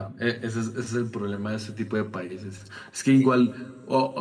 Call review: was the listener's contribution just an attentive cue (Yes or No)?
Yes